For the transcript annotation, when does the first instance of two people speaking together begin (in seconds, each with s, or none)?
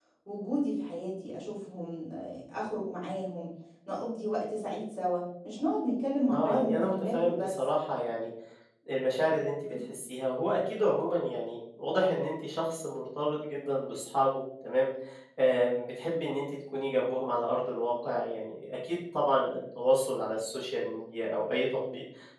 6.3 s